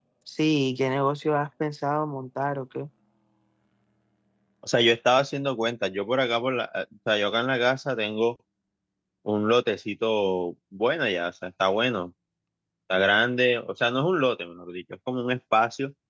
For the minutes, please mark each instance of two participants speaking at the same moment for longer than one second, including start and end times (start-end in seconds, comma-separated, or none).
none